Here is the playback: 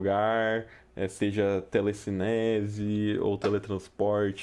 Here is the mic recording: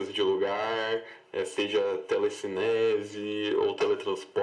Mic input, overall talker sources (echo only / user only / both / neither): echo only